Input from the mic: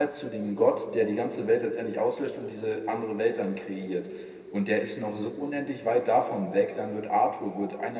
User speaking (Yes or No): Yes